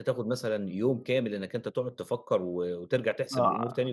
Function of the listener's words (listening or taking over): taking over